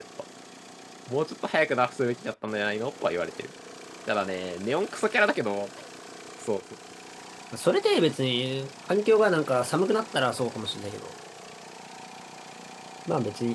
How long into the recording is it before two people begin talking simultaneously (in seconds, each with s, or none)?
none